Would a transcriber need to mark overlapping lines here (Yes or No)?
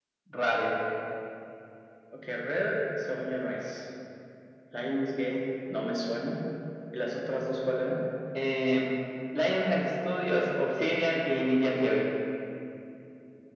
No